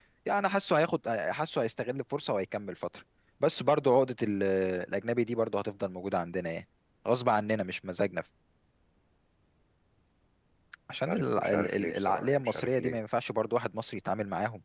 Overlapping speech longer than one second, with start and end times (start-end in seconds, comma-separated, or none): 11.1-13.0